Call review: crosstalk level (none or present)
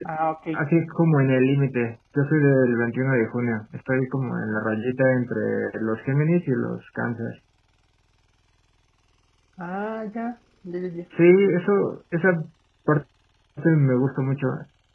none